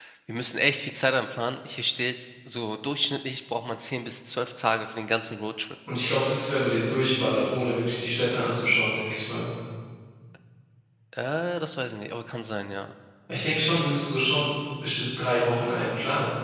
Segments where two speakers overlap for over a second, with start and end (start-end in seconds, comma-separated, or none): none